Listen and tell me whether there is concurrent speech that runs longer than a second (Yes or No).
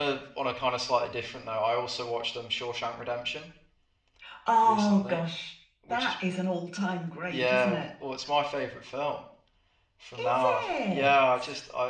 Yes